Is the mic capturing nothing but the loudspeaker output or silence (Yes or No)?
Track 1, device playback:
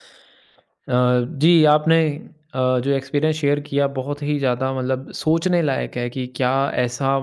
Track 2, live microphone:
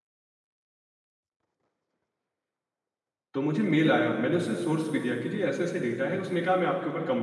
No